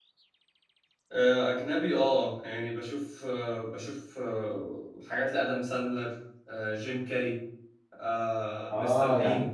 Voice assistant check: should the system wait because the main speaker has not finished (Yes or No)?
No